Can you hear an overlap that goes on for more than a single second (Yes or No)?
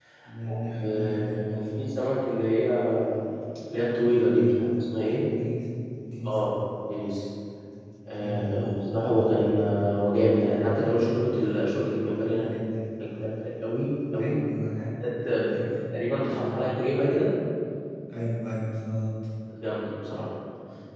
Yes